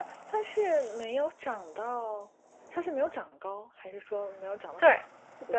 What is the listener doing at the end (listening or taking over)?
taking over